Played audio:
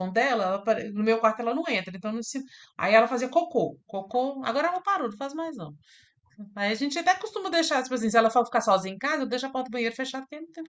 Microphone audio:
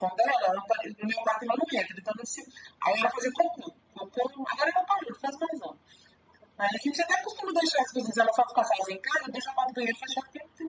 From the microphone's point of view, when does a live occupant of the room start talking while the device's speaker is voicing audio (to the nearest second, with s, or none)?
none